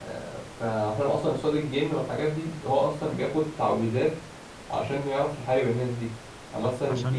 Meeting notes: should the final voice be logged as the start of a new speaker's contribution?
No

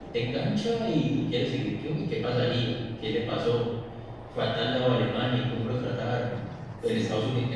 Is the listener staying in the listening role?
Yes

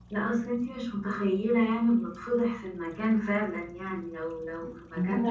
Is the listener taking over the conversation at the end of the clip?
Yes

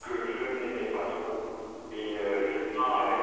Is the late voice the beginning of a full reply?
No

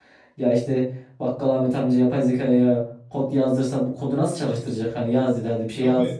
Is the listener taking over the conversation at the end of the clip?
Yes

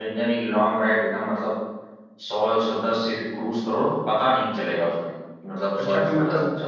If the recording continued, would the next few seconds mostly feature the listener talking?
Yes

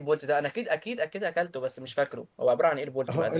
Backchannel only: No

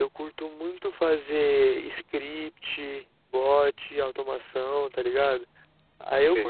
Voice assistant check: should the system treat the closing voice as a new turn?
No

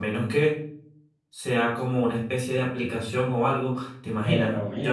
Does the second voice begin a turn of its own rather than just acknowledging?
Yes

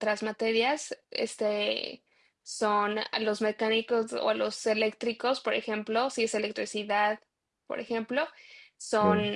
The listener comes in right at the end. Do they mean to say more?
No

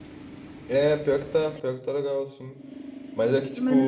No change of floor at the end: Yes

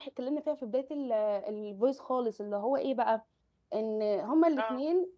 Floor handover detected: No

